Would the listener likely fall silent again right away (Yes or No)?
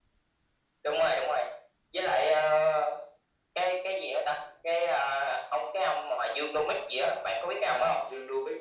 No